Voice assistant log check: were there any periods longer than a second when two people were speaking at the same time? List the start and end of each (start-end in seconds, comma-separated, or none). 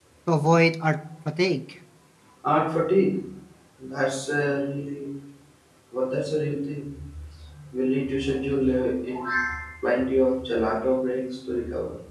none